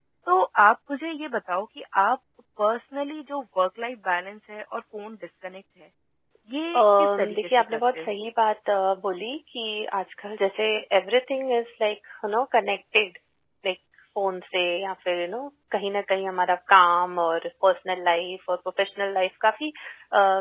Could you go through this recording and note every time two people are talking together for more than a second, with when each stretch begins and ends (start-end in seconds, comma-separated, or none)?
6.8-8.2